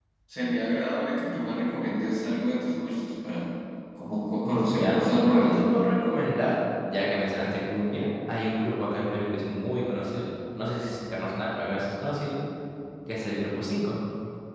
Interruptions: present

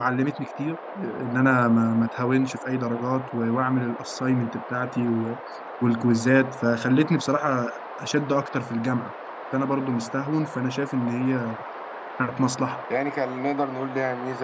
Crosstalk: none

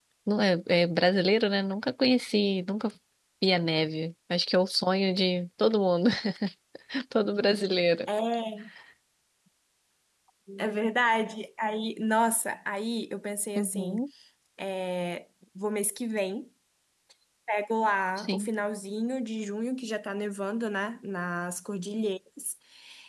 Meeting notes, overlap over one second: none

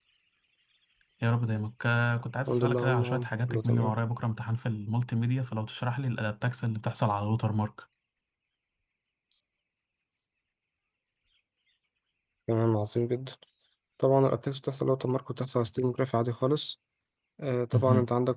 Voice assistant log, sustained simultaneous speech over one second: present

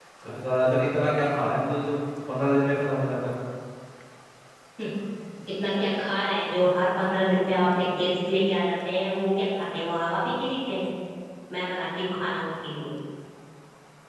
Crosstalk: none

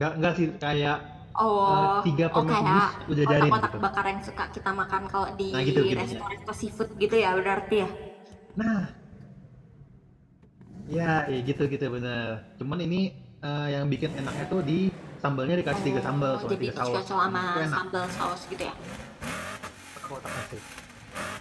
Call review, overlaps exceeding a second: present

